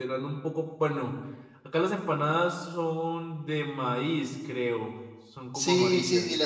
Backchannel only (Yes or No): No